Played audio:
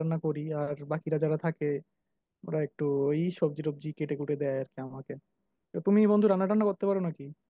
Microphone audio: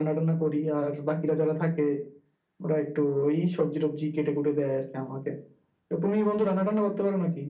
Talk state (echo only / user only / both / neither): echo only